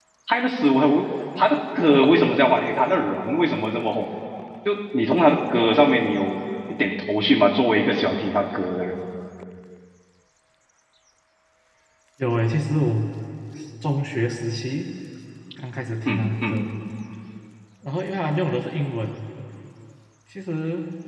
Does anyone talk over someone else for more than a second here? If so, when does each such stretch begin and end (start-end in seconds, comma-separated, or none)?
none